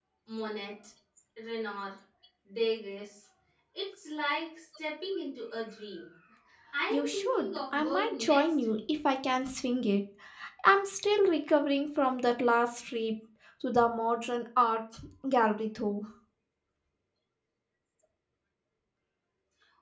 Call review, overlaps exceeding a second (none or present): present